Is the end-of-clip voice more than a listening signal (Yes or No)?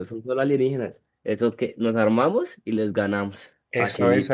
Yes